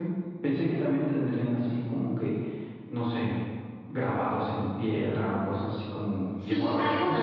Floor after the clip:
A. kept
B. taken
B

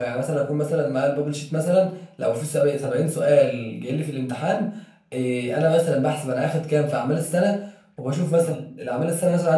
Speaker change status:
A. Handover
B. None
B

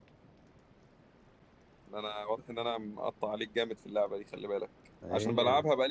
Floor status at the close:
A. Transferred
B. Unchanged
B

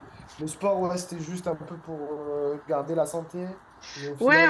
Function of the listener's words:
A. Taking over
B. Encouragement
A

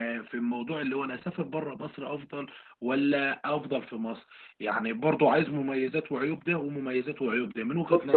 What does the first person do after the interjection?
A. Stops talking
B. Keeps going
A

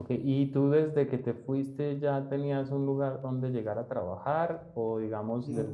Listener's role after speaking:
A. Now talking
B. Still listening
B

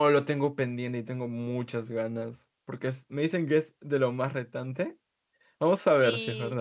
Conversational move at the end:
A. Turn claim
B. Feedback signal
A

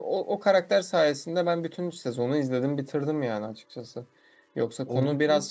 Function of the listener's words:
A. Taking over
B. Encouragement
B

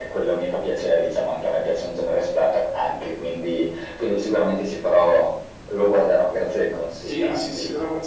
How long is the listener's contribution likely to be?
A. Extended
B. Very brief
A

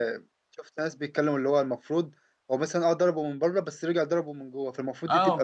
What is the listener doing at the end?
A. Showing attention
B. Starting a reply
B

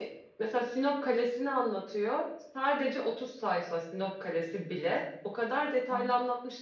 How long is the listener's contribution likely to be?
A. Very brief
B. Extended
A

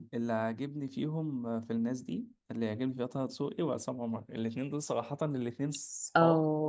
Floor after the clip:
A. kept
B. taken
B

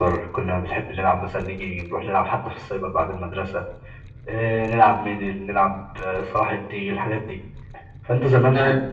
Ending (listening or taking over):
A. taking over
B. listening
B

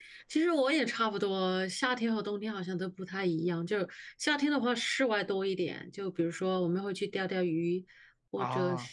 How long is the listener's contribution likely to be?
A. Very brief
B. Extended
A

